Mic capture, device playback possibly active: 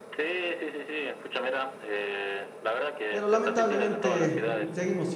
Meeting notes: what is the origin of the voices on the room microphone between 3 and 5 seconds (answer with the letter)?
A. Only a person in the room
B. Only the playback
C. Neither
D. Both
D